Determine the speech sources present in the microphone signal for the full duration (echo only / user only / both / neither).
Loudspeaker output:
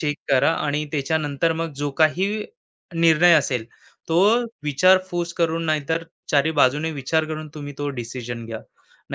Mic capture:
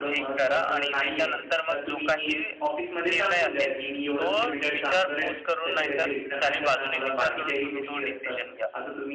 both